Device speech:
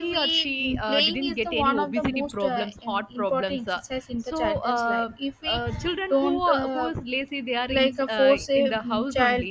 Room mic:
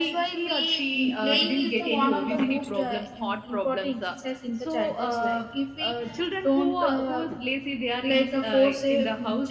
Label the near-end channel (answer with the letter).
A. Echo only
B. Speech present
A